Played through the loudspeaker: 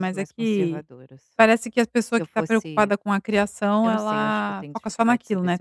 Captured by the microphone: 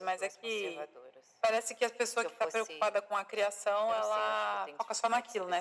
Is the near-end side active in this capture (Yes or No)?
No